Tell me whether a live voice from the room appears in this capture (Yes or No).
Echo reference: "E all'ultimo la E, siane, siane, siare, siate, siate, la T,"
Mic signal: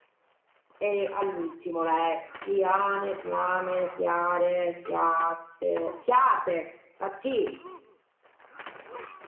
No